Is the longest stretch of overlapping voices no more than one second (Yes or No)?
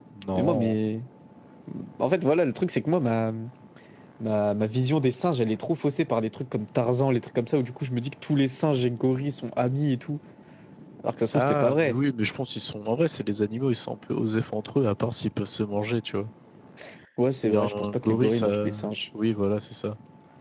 No